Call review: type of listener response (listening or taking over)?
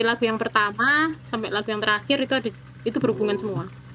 taking over